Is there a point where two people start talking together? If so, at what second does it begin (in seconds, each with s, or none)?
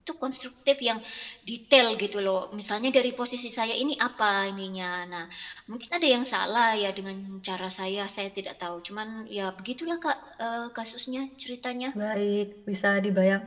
none